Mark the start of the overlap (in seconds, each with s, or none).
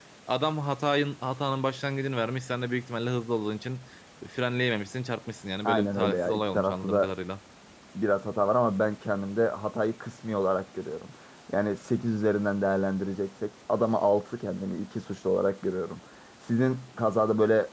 5.7 s